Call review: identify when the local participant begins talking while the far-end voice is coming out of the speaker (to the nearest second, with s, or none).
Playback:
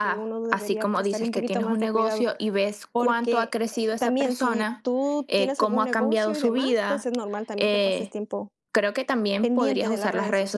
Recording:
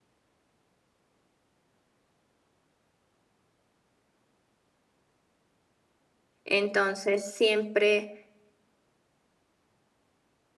6 s